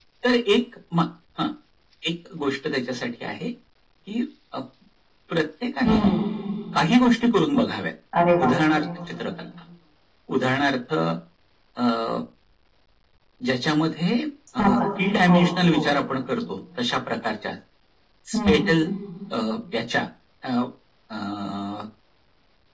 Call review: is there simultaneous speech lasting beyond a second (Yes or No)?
No